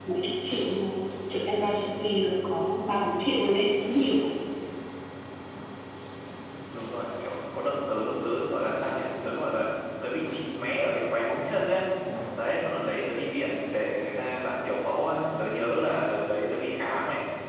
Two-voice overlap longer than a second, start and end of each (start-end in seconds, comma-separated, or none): none